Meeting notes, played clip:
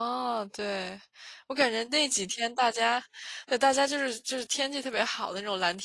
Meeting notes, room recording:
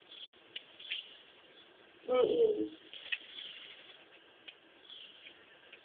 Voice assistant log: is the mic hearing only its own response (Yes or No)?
No